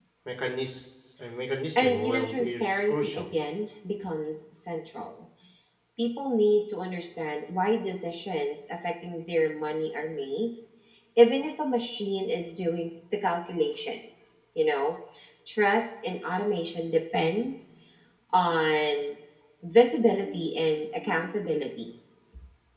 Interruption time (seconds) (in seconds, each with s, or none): 1.8 s